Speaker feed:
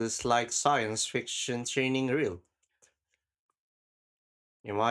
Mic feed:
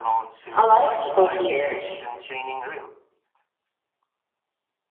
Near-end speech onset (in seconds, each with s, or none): 0.6 s